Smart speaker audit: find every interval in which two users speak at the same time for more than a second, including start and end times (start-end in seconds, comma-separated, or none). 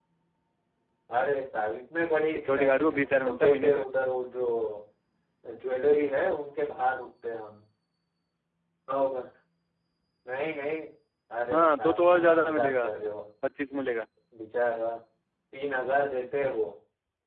2.4-3.8, 11.5-12.9